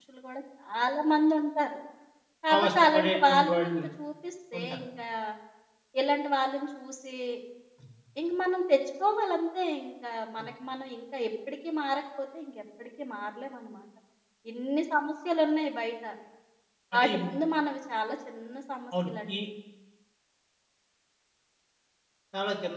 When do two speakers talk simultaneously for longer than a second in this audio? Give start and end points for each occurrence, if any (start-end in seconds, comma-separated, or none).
2.6-3.8